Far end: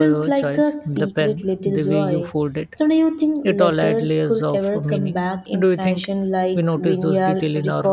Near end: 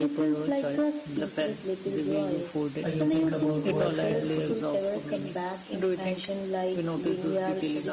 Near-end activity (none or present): present